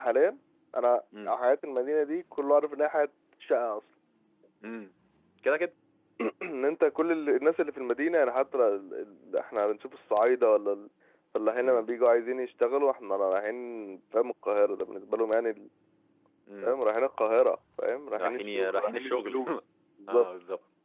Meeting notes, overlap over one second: present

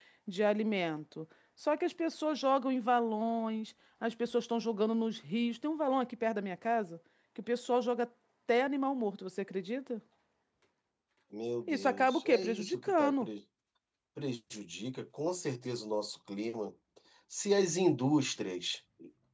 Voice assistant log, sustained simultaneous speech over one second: present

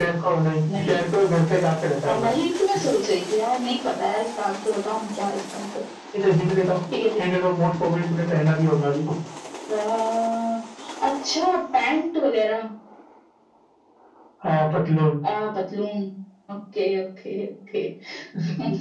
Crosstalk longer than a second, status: none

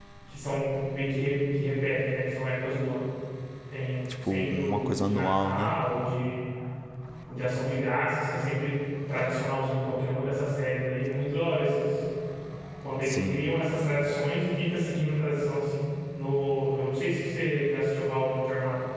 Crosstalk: present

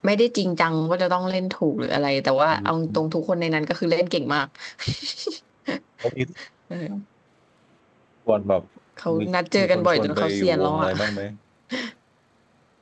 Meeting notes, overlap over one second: present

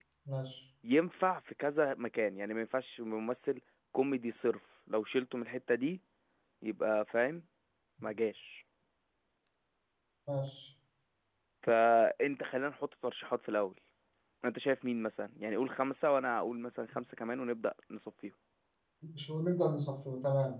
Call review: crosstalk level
none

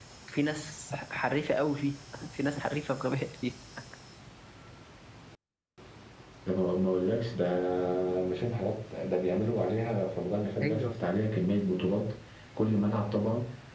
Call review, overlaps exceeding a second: none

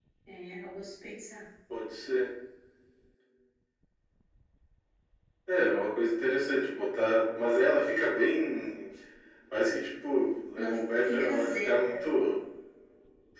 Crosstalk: present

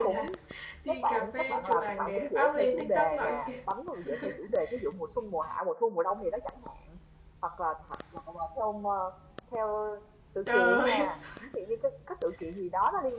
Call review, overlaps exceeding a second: present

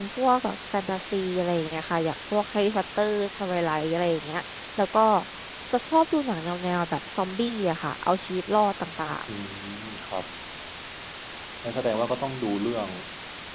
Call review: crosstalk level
none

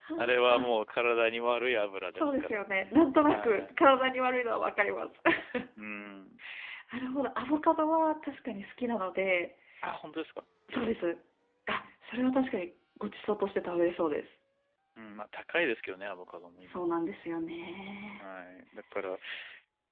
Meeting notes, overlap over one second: present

